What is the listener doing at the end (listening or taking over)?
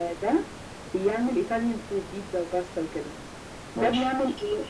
listening